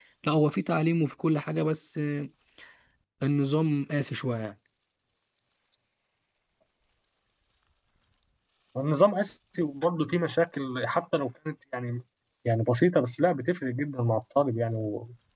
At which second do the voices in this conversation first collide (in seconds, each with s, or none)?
none